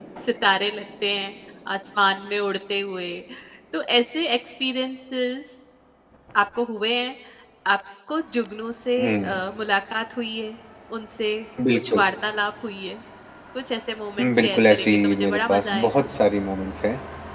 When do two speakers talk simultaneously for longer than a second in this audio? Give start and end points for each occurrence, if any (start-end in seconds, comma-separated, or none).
14.2-16.1